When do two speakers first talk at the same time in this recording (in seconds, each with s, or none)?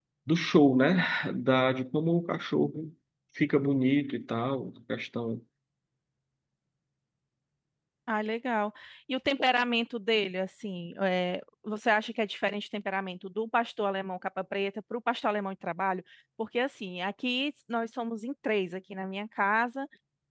none